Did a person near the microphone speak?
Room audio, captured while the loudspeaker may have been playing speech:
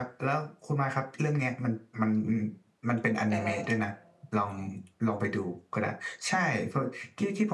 Yes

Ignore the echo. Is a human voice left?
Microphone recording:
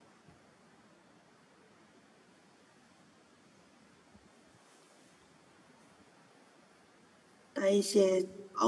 Yes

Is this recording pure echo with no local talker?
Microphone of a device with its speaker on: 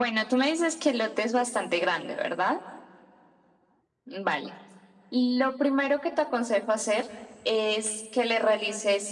Yes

